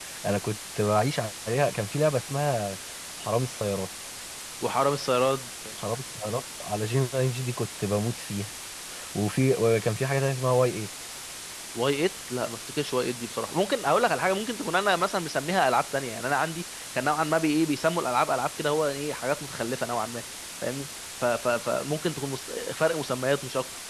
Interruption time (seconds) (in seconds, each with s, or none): none